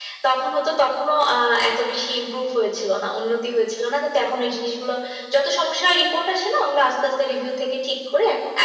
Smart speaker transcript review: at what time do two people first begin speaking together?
none

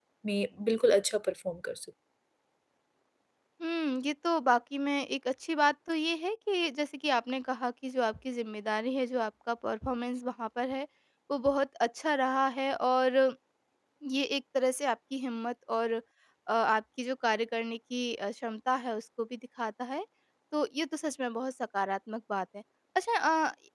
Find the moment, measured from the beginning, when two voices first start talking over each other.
none

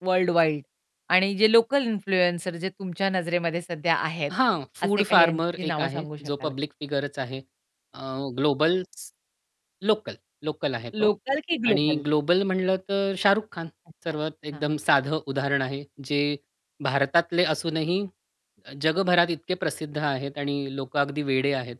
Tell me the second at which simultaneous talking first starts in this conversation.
4.8 s

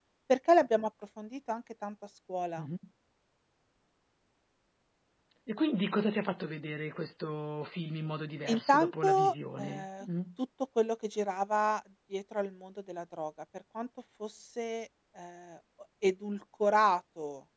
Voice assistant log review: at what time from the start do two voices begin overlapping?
8.5 s

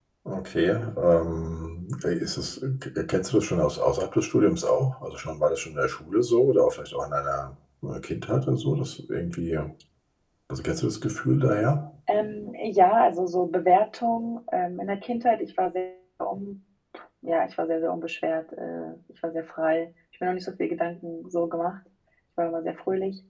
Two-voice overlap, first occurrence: none

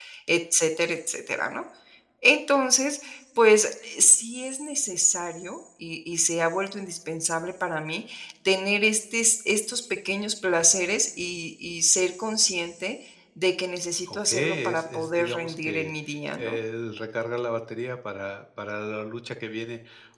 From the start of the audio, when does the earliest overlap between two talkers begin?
14.1 s

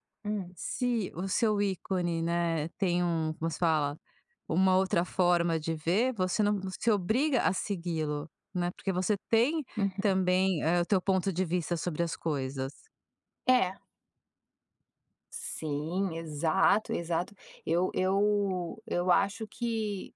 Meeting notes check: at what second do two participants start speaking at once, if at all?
none

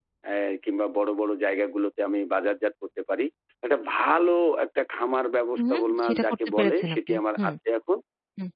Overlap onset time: 5.6 s

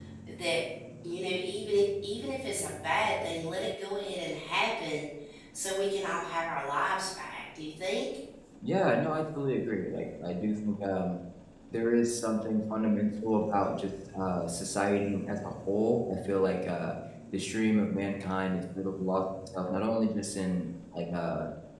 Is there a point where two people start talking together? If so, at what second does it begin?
none

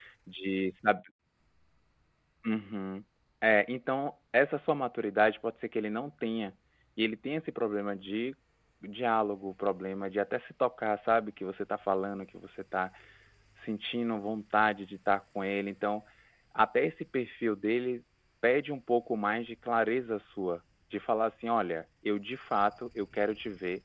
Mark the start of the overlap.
none

